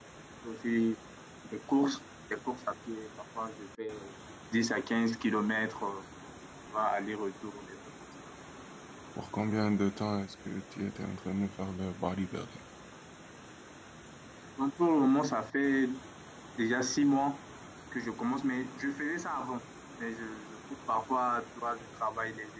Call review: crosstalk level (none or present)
none